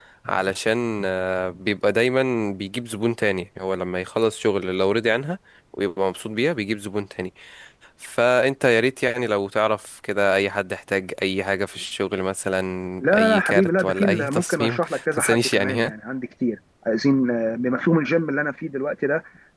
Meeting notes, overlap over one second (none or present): present